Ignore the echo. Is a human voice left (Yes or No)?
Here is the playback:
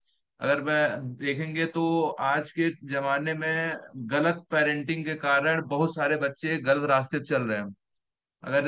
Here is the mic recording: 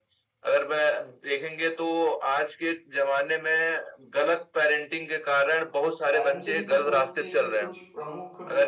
Yes